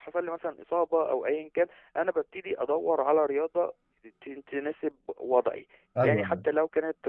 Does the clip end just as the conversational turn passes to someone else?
No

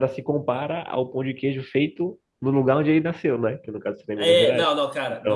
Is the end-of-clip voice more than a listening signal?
Yes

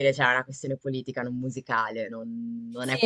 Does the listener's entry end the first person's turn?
Yes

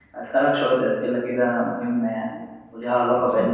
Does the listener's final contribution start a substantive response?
No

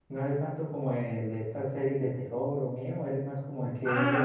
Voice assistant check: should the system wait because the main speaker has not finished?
No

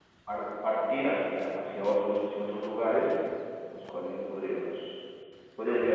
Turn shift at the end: No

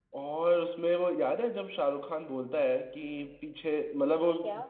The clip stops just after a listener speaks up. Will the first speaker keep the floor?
Yes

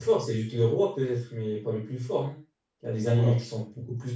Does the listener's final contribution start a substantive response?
No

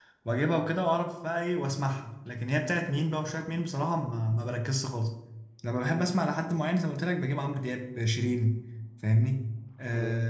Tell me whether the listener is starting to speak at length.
No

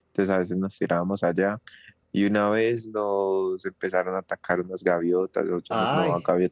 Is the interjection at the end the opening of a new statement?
No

